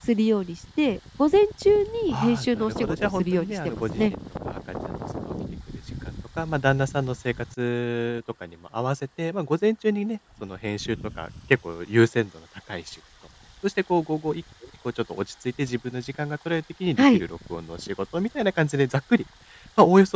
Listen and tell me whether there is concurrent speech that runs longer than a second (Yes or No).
Yes